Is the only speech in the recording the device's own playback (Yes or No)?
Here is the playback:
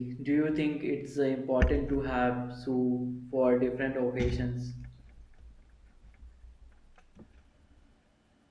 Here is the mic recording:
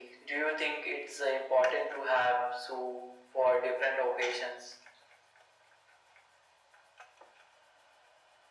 Yes